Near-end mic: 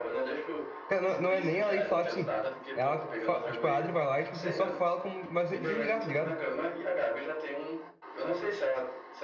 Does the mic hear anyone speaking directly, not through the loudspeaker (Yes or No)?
Yes